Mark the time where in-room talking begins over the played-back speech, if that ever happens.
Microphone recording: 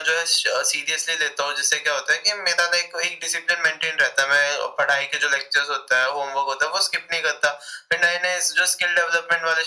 none

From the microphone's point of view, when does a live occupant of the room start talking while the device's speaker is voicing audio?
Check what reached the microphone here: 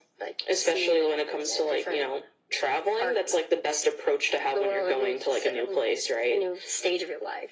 none

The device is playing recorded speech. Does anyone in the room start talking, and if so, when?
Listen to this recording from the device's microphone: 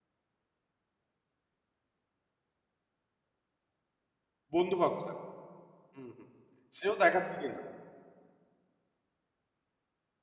4.5 s

